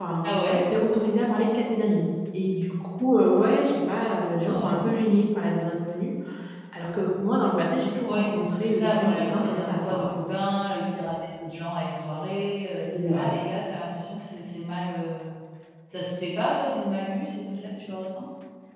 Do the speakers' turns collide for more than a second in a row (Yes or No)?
Yes